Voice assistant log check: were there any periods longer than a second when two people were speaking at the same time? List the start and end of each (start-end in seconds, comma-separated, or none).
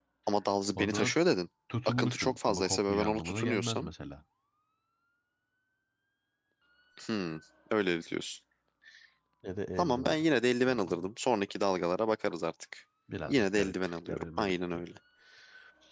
1.9-3.9, 13.3-14.8